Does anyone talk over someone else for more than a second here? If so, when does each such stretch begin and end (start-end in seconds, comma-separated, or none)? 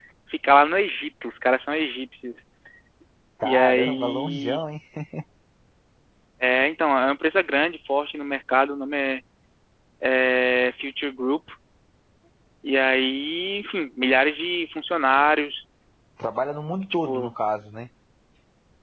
3.4-4.6